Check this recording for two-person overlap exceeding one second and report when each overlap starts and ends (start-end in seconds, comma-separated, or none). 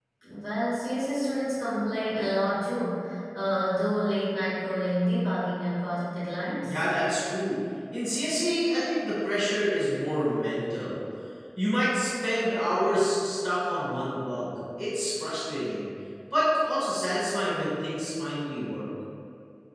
none